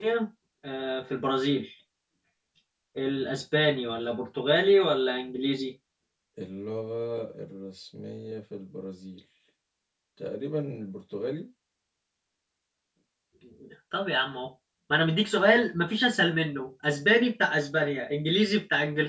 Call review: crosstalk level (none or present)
none